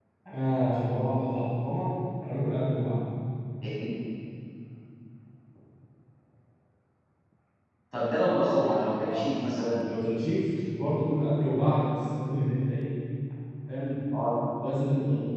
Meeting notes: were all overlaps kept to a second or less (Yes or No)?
Yes